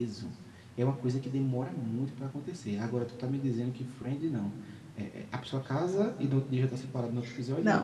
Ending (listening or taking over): taking over